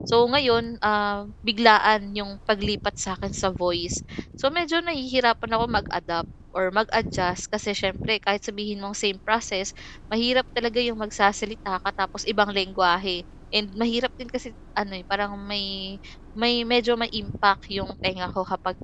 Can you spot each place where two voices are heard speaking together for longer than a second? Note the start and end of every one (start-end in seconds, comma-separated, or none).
none